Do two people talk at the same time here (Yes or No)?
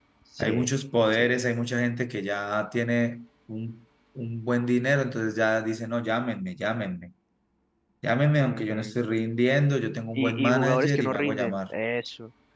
Yes